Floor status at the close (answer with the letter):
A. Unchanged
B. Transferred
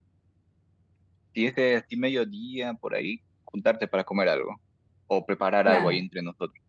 A